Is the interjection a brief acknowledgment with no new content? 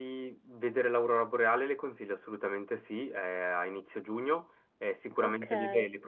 Yes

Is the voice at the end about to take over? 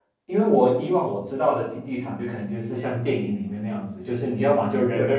No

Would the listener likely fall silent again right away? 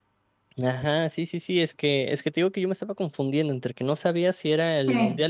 Yes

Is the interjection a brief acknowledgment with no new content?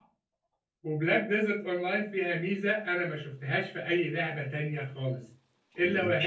Yes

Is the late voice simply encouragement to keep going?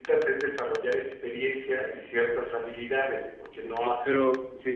No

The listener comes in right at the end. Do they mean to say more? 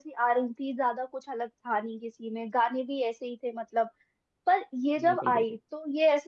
No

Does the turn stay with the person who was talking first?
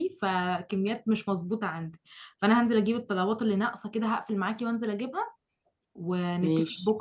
Yes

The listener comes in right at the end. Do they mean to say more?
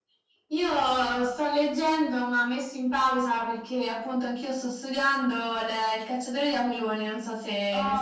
Yes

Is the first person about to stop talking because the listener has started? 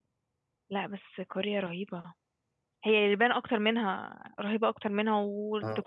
No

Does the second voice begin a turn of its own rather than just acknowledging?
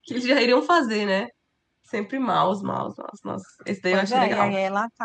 Yes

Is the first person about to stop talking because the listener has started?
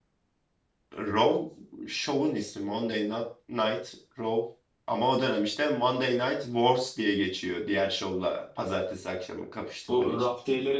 Yes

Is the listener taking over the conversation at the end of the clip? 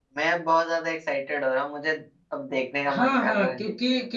Yes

